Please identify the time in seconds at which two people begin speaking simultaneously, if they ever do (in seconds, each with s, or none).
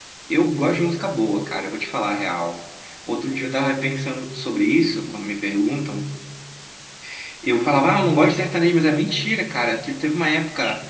none